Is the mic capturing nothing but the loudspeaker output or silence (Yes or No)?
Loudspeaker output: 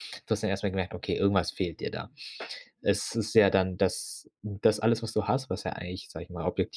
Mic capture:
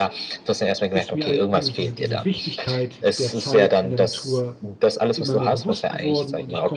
No